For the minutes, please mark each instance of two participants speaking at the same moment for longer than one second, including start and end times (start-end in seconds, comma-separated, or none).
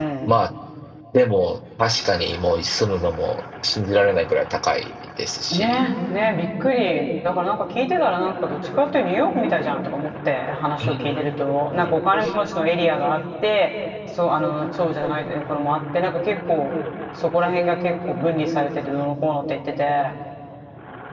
none